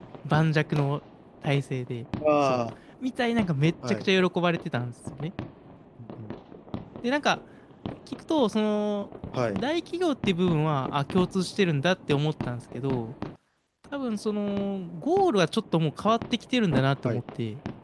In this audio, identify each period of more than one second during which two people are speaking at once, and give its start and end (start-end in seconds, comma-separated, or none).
none